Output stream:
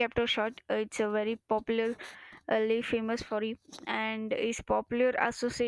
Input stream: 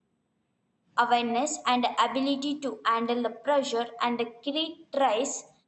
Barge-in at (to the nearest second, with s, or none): 1 s